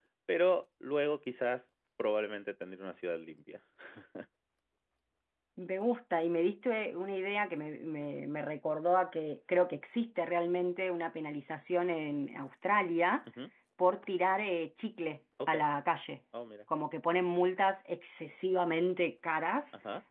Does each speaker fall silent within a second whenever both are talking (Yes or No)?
Yes